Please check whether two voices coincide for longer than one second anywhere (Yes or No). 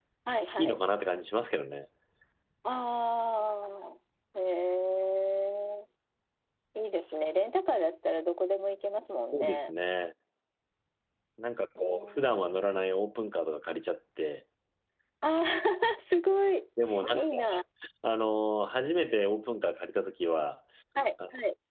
No